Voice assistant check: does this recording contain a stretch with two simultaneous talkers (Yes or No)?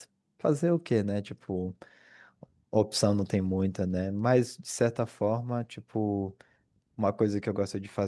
No